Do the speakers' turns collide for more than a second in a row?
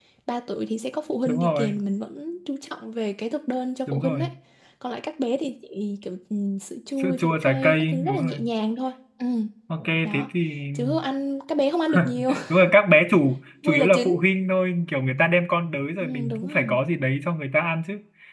Yes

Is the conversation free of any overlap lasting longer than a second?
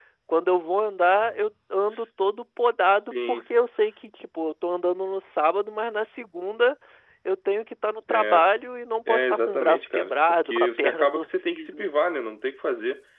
No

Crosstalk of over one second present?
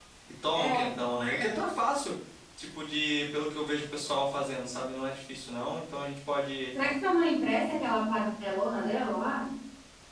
No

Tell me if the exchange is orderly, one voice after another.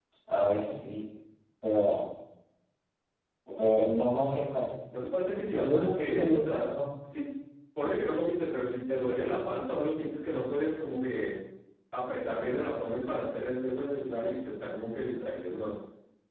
No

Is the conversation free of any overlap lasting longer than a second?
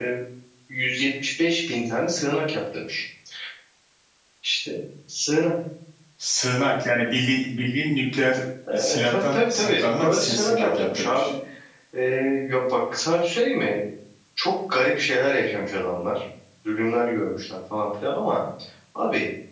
No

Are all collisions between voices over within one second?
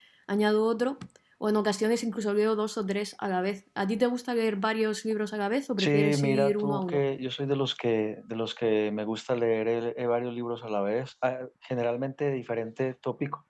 No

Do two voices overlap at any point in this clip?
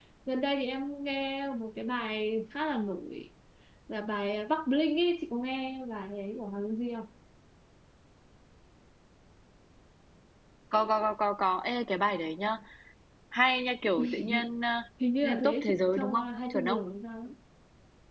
Yes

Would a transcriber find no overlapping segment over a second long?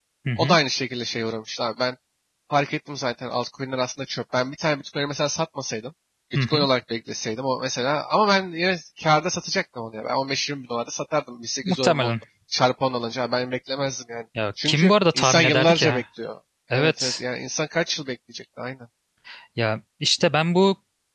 No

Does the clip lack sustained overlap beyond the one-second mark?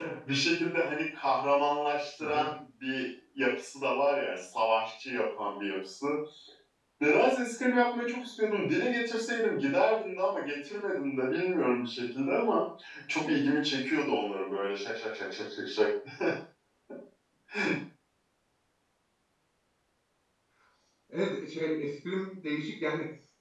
Yes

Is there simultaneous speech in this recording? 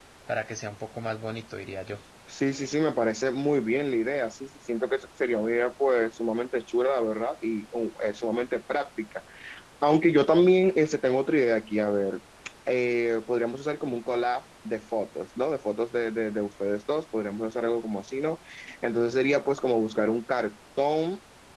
No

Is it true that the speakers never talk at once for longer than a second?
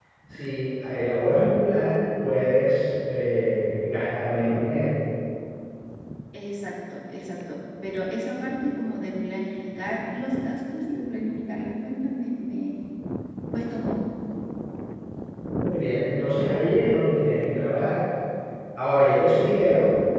Yes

